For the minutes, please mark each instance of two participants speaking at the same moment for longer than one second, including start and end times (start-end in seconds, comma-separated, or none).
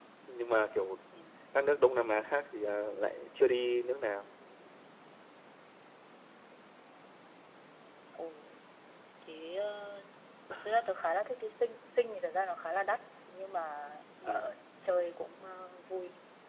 none